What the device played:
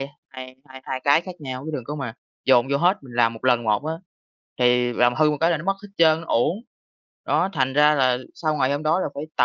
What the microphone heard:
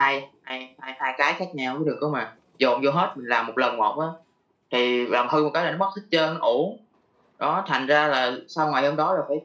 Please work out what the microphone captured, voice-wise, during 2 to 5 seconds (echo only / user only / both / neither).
echo only